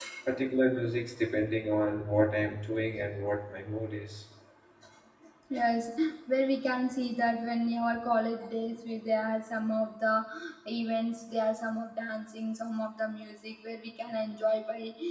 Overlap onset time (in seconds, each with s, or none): none